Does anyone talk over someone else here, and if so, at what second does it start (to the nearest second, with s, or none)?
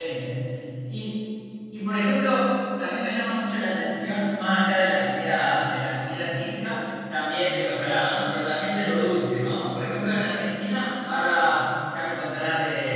none